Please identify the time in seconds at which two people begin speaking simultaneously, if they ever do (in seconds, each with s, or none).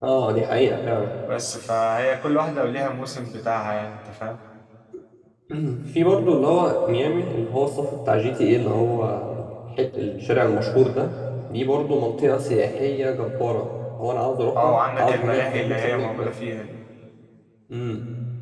14.6 s